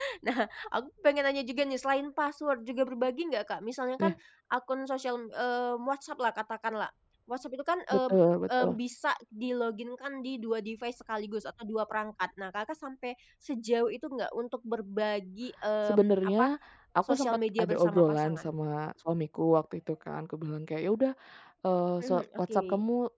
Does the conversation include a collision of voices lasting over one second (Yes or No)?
Yes